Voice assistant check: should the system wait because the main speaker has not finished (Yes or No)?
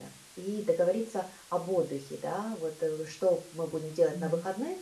Yes